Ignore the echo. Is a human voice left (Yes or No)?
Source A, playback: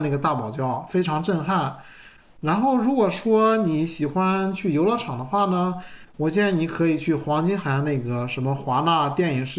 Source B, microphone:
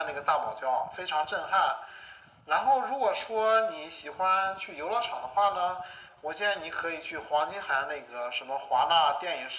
No